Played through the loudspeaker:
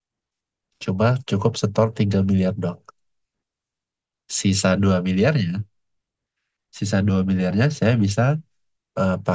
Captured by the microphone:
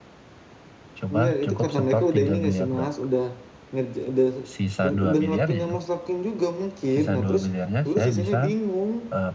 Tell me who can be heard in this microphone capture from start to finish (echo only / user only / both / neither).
both